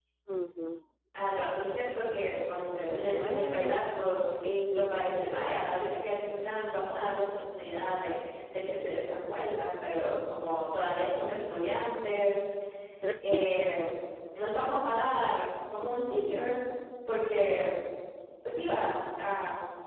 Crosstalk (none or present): present